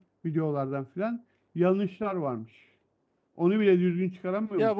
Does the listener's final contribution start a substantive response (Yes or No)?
Yes